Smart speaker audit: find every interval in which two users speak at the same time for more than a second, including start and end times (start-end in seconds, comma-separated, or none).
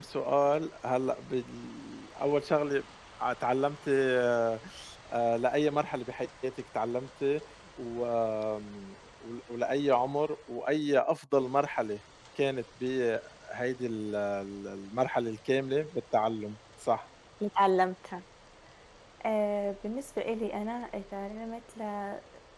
none